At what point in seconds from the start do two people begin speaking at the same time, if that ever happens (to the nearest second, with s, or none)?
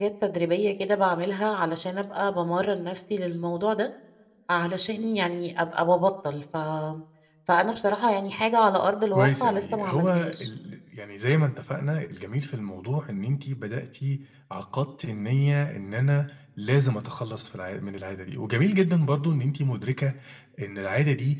9 s